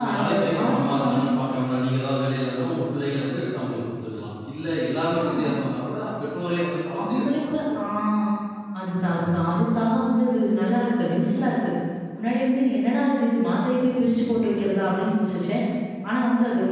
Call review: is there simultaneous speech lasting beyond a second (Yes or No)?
Yes